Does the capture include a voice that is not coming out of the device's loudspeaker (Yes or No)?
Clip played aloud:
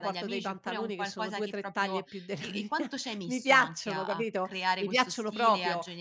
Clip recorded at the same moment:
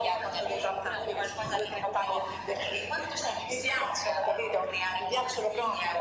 No